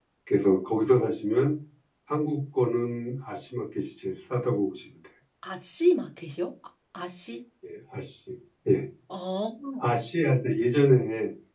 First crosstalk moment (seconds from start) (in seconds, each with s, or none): none